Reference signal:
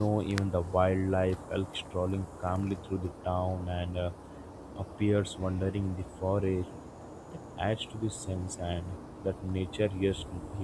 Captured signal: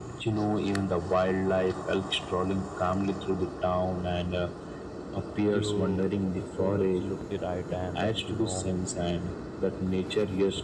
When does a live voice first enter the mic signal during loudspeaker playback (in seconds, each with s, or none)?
5.4 s